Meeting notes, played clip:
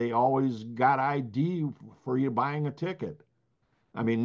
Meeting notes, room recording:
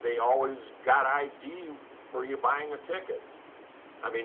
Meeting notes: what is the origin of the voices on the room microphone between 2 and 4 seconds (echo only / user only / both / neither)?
echo only